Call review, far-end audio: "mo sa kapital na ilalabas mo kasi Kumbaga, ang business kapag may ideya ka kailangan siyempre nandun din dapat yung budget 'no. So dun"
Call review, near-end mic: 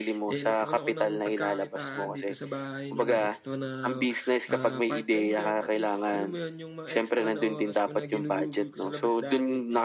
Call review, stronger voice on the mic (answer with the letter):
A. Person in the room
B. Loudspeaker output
B